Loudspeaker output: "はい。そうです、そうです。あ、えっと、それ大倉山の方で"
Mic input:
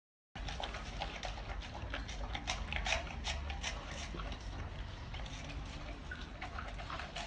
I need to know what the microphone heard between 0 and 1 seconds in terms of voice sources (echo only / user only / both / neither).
neither